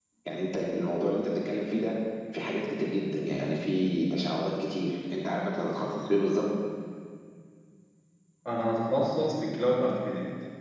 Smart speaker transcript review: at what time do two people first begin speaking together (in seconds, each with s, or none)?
none